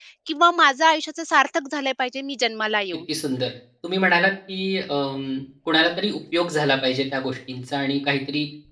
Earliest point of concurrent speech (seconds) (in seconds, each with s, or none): none